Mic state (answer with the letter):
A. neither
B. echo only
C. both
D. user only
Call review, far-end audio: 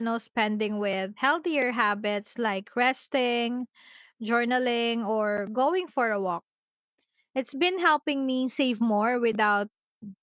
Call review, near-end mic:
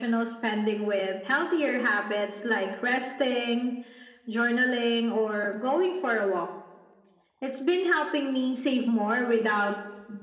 B